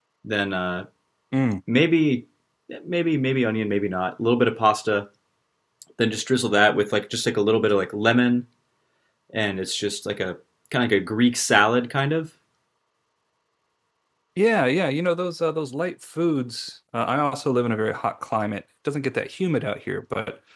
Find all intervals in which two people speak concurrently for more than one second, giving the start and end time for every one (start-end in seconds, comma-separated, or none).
none